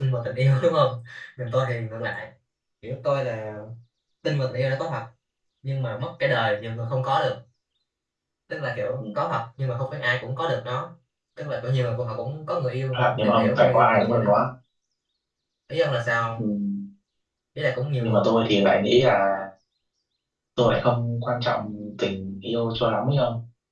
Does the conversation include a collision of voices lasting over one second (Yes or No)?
Yes